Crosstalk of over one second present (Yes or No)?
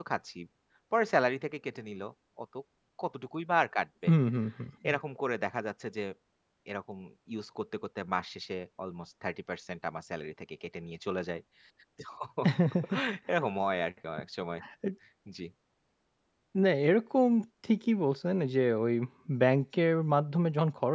No